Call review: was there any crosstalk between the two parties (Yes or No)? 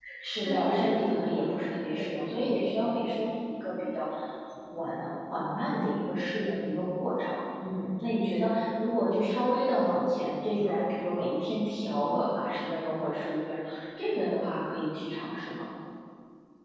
Yes